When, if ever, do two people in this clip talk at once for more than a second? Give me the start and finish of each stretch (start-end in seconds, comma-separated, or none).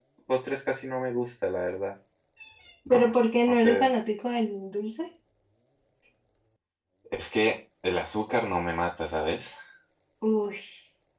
none